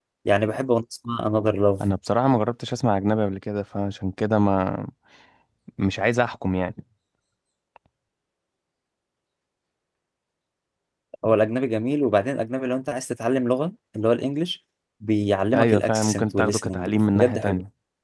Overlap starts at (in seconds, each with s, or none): 15.5 s